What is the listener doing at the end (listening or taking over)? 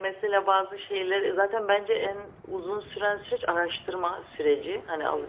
listening